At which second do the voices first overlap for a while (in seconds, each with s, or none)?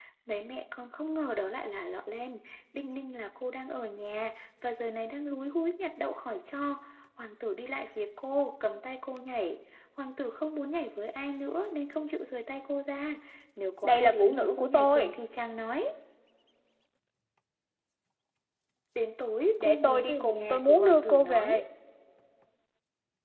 13.8 s